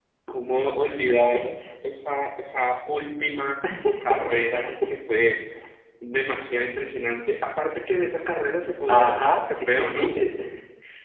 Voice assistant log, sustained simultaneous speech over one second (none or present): present